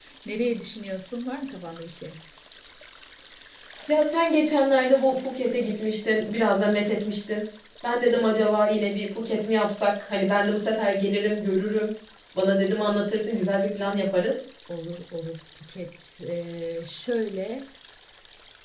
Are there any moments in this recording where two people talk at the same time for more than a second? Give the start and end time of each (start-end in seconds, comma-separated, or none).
none